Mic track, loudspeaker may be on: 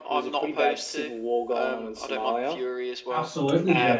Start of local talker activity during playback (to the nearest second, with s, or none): 3 s